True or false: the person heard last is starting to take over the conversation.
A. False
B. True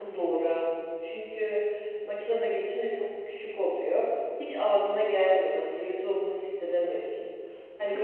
A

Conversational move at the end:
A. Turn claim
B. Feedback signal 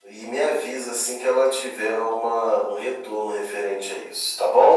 A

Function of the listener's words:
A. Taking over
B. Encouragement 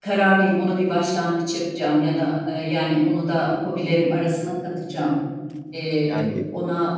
B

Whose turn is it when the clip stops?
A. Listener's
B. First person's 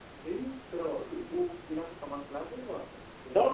A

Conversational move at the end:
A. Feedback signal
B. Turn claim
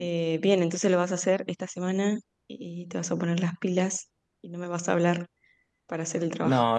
B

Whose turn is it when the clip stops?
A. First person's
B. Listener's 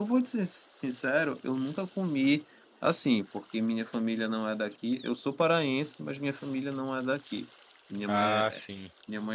A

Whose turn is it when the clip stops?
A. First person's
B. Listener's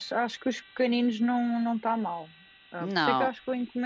A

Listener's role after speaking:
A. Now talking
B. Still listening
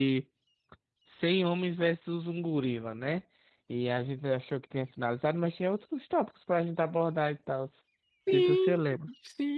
A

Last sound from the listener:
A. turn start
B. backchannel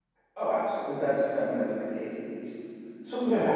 B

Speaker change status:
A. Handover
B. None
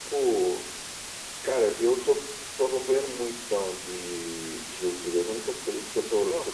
B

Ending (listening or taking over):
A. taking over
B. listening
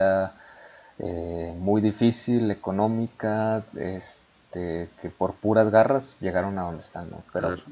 A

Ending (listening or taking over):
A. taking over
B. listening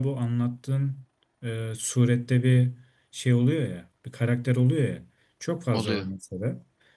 B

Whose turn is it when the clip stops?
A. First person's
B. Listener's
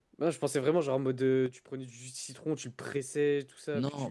B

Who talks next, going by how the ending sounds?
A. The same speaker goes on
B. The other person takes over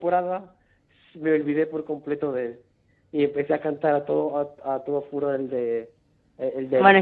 B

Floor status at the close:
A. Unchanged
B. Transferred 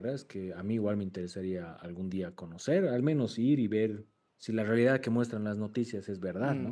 B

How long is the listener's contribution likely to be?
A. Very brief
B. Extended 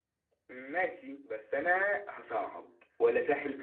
B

